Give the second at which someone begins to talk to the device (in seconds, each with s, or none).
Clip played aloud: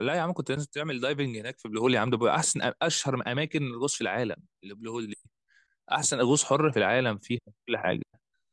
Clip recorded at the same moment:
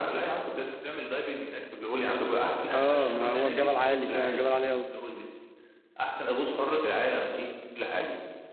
2.7 s